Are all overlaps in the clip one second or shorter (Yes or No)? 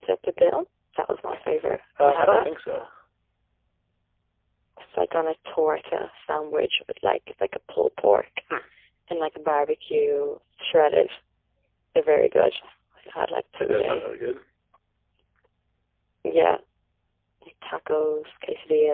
Yes